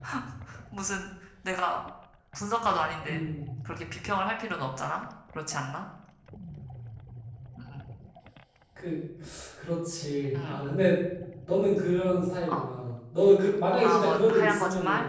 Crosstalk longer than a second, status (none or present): present